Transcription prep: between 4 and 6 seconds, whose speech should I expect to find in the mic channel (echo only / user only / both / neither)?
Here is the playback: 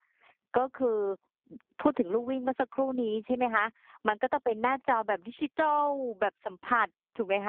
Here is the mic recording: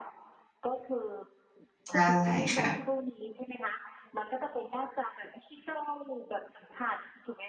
echo only